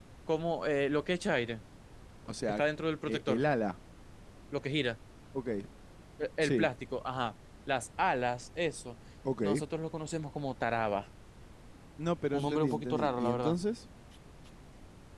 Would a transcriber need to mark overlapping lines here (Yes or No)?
Yes